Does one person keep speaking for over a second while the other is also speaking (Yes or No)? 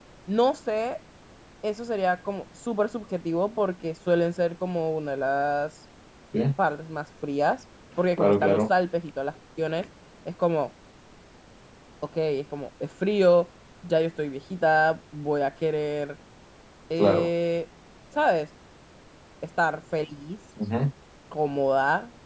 No